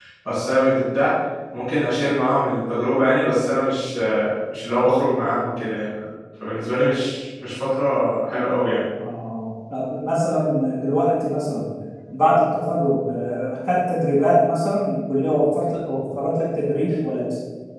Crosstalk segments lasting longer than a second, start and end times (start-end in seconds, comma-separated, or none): none